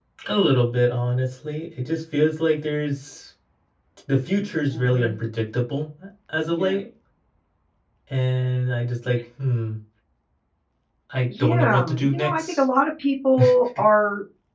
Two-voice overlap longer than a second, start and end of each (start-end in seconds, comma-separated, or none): 11.4-12.6